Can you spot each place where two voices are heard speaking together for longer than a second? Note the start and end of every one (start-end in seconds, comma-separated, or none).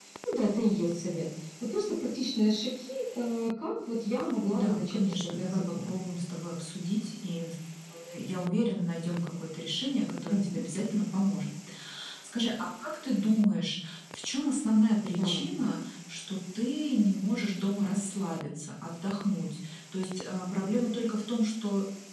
4.5-6.0